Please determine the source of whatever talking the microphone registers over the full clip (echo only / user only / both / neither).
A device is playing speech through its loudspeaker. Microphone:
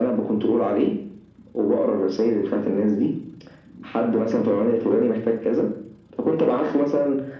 echo only